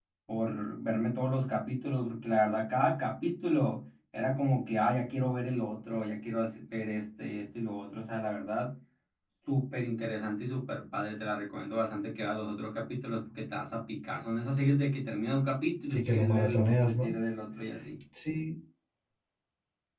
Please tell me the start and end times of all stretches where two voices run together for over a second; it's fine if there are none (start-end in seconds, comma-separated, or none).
15.9-17.1